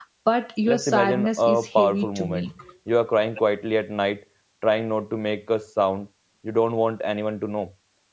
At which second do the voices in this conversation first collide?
0.6 s

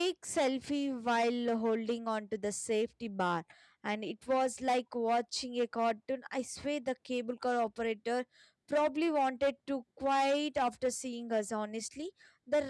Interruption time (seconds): none

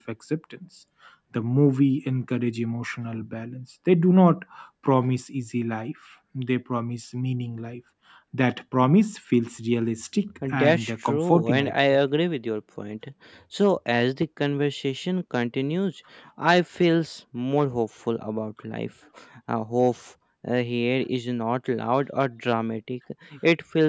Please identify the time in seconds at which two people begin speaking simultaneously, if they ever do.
10.3 s

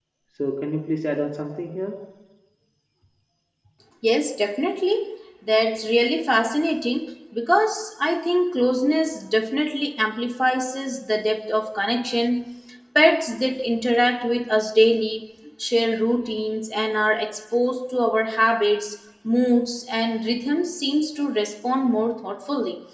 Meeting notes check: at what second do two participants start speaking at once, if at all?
none

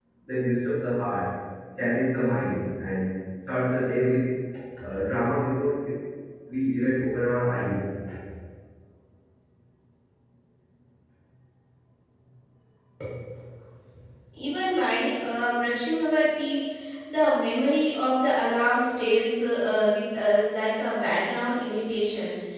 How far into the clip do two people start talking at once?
none

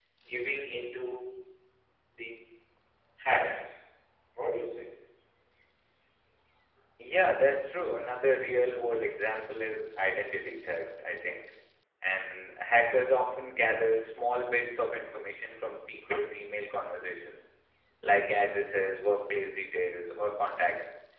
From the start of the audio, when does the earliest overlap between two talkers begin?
none

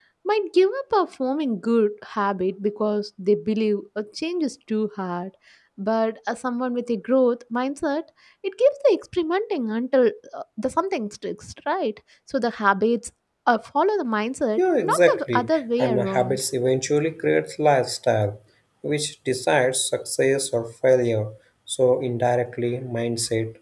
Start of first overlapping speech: 14.6 s

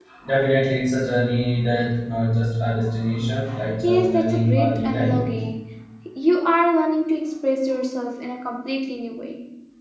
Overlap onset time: 3.8 s

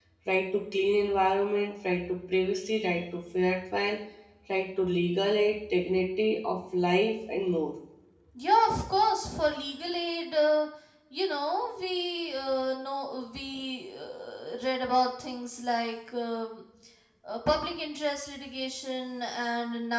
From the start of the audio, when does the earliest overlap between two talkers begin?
none

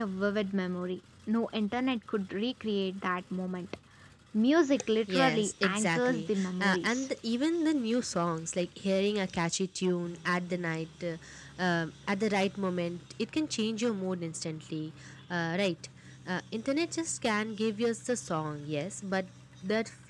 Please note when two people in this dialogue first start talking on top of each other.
5.1 s

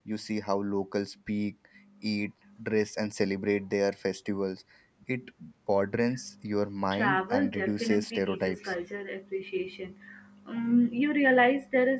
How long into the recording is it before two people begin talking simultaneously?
6.9 s

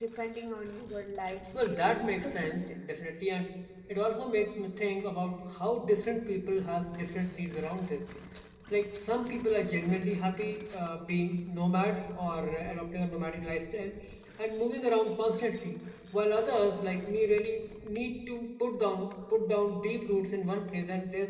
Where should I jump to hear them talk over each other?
1.5 s

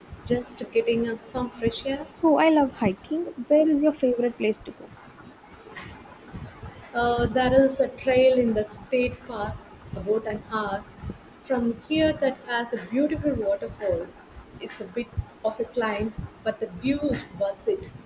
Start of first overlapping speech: none

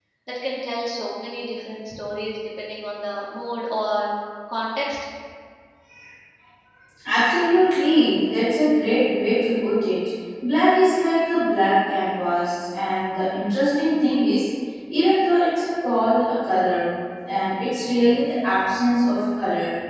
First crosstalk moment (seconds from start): none

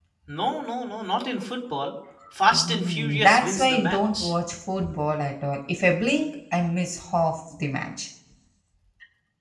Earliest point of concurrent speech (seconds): 2.5 s

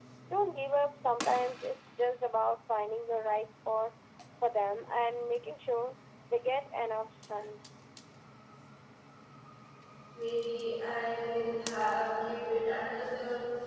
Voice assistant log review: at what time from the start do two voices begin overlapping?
none

